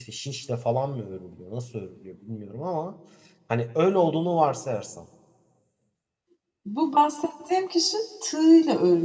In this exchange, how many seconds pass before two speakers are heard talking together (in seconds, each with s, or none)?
none